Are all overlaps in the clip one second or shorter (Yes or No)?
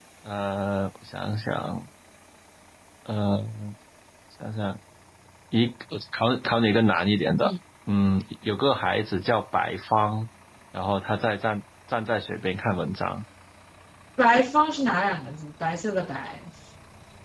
Yes